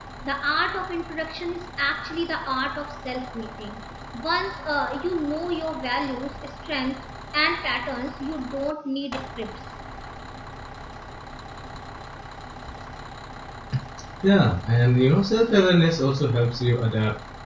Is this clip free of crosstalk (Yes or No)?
Yes